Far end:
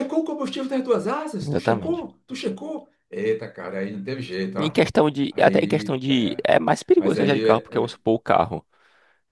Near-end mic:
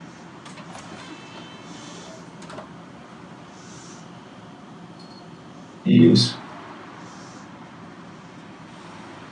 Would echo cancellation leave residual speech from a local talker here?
Yes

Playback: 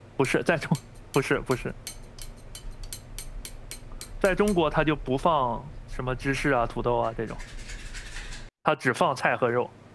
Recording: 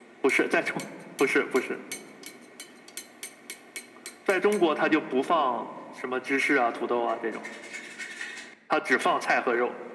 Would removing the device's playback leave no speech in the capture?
Yes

